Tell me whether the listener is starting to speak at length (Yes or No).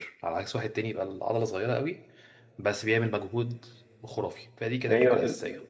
Yes